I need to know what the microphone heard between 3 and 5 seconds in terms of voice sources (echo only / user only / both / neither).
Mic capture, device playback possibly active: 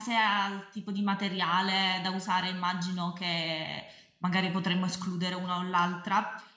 user only